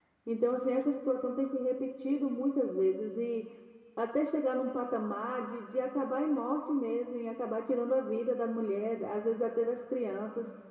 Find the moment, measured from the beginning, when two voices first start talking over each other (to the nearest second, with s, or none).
none